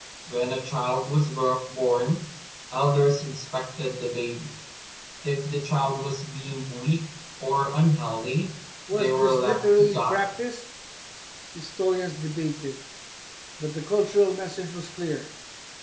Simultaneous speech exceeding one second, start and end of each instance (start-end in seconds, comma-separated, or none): 8.9-10.3